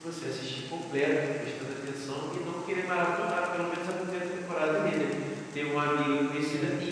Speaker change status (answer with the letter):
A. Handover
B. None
B